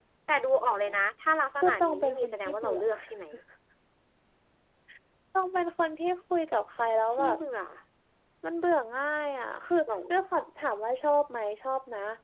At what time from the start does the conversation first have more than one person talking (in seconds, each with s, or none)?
1.6 s